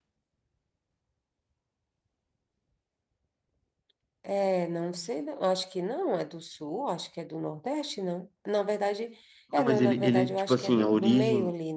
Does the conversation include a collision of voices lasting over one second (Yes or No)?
Yes